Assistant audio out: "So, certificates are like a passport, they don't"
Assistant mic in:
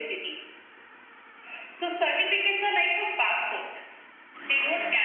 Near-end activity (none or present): none